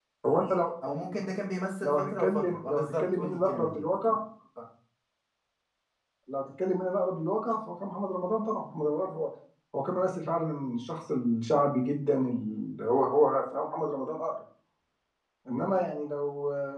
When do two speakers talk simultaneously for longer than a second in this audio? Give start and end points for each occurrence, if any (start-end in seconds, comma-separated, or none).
1.8-3.9